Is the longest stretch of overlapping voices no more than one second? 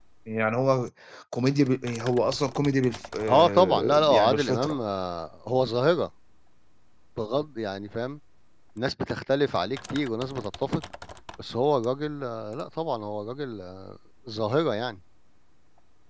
No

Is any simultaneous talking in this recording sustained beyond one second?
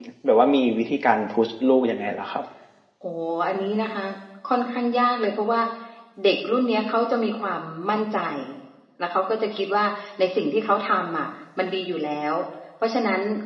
No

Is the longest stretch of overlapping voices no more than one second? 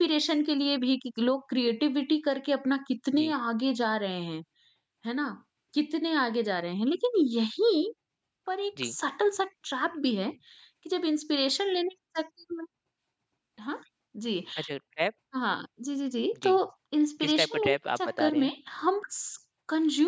No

